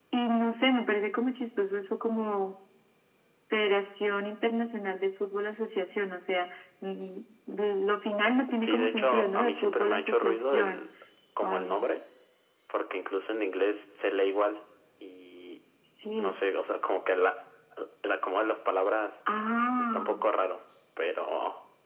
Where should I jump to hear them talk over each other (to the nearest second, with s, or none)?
9 s